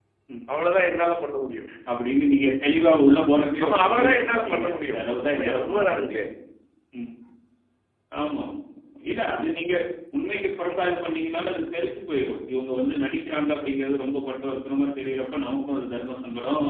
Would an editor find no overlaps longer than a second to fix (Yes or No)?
No